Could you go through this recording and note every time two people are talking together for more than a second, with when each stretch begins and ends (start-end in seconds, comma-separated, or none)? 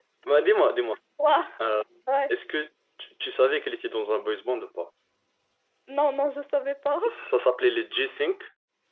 none